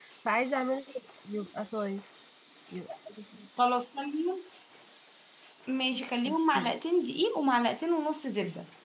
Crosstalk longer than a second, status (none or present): none